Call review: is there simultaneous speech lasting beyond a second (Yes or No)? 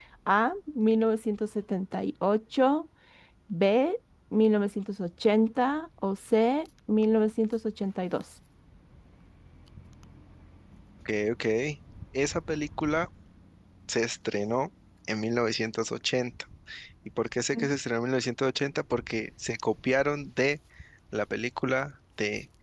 No